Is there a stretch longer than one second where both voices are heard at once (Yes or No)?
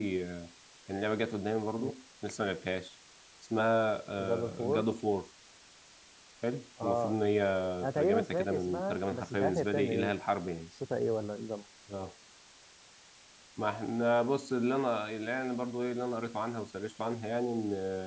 Yes